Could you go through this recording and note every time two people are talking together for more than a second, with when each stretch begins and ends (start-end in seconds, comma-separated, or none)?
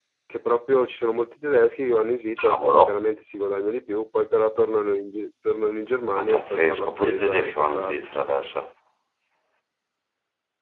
6.2-8.1